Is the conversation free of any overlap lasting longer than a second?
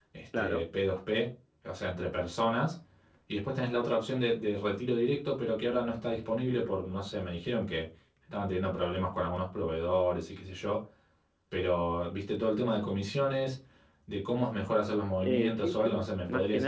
No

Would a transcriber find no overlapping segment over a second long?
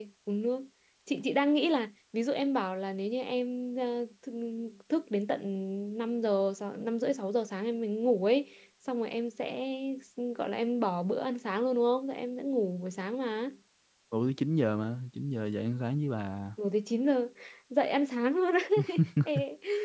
Yes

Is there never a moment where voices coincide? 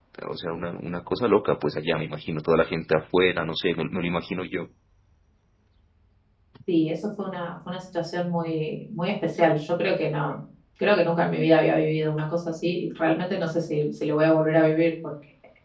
Yes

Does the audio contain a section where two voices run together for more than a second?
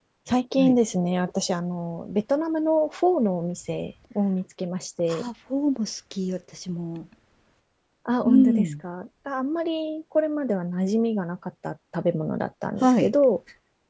No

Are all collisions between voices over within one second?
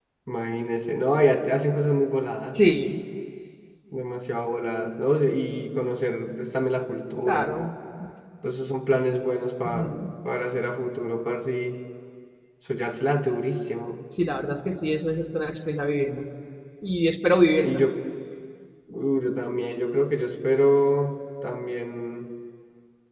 Yes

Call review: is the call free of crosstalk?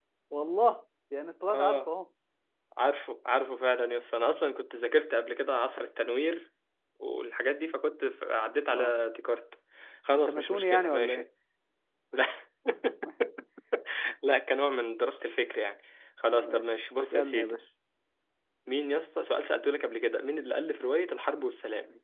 No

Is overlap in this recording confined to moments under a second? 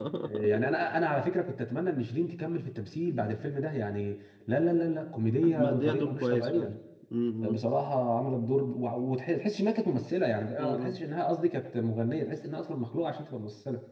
No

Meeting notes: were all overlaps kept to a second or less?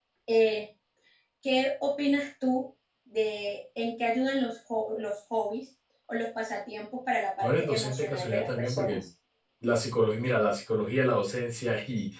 No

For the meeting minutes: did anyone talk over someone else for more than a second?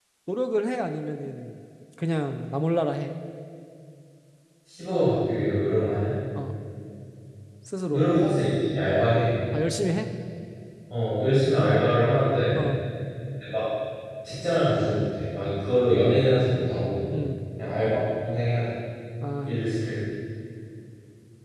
No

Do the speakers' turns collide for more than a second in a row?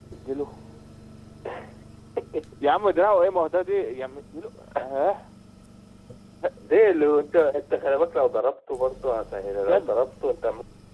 No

